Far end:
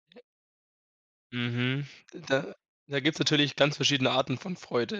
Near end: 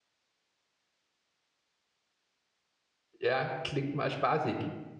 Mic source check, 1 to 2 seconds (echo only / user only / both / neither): neither